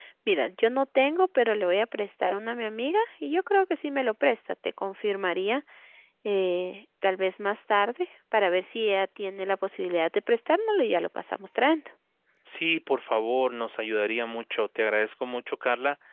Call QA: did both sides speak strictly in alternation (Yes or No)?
Yes